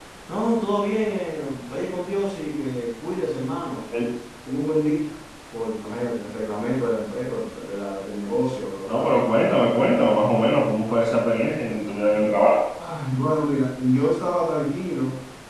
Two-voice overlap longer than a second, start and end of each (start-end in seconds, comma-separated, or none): none